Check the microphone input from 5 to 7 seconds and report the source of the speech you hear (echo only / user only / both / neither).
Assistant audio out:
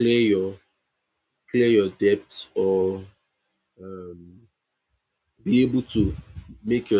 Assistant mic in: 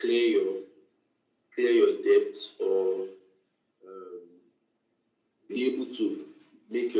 echo only